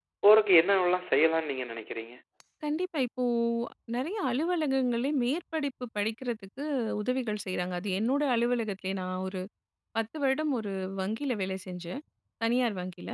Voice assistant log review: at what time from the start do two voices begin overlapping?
none

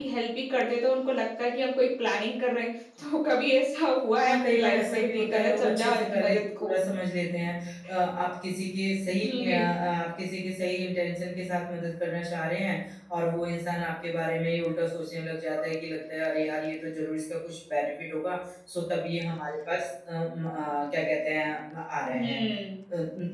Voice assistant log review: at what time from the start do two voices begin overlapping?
4.3 s

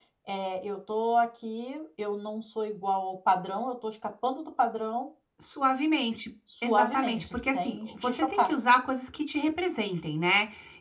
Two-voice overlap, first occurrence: 6.6 s

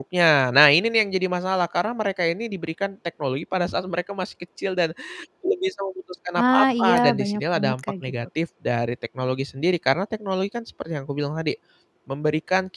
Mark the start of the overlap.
6.4 s

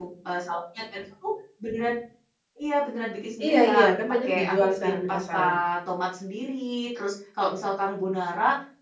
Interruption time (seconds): 3.4 s

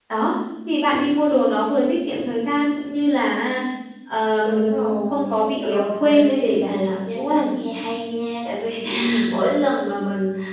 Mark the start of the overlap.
4.4 s

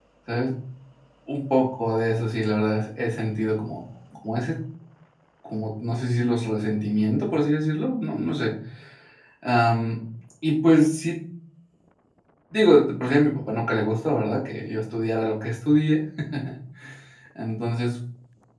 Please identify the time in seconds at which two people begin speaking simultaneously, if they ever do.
none

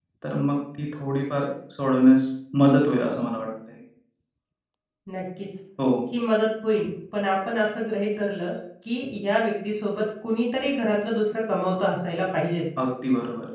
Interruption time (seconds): none

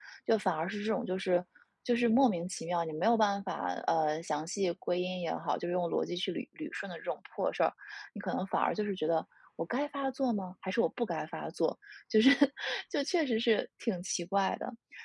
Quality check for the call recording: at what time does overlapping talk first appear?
none

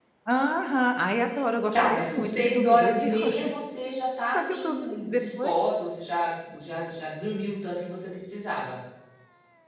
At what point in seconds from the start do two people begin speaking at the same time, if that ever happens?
1.7 s

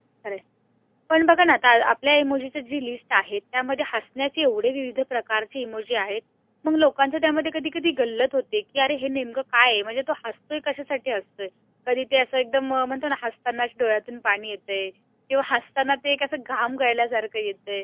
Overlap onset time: none

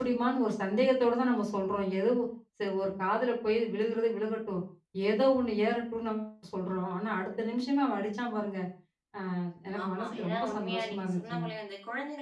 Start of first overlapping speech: 9.8 s

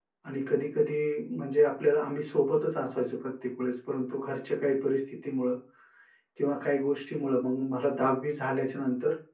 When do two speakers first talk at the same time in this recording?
none

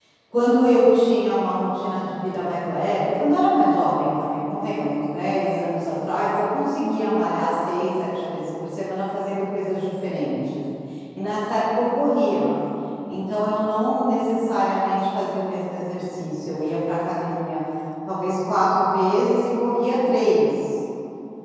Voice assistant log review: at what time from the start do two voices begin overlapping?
none

